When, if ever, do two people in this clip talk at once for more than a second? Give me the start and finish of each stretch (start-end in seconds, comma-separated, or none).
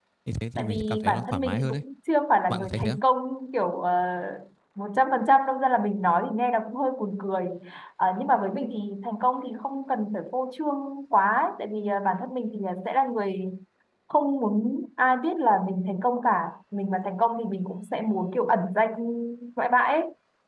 0.6-1.8